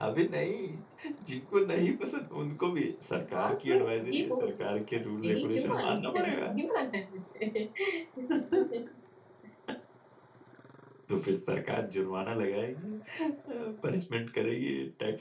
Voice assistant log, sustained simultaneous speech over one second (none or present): present